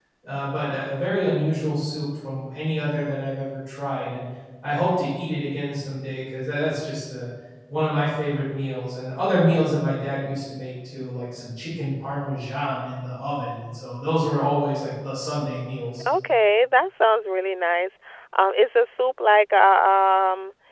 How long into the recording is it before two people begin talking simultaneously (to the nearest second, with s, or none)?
none